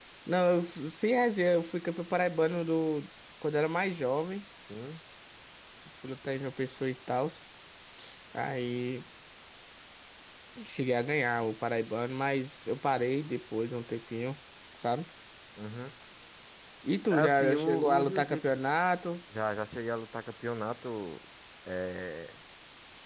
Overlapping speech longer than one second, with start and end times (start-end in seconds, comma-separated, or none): 17.1-18.6